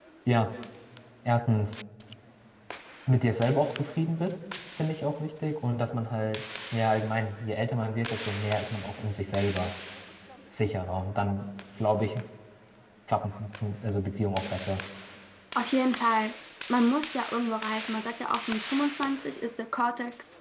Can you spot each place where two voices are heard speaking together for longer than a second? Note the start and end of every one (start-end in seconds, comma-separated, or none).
none